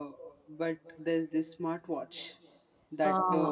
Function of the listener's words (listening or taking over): listening